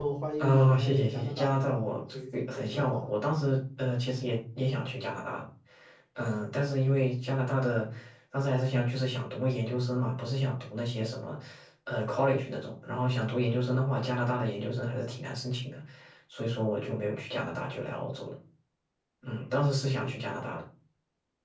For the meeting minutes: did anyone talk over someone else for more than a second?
Yes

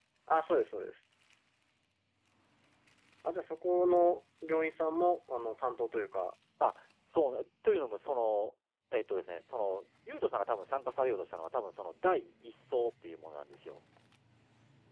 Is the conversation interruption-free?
Yes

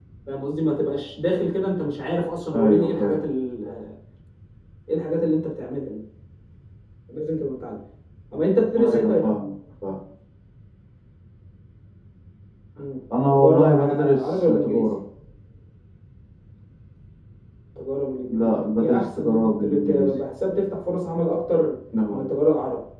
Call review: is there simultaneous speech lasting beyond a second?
Yes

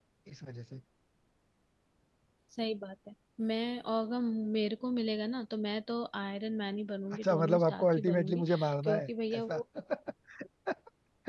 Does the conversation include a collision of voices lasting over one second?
Yes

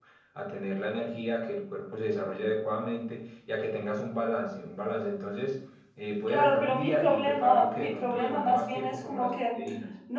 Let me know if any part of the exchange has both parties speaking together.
Yes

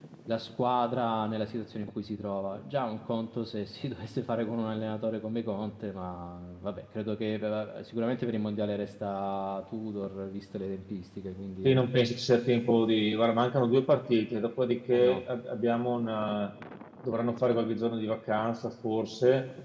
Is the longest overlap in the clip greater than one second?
No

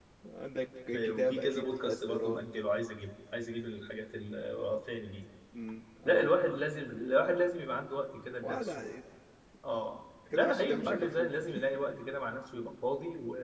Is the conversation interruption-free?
No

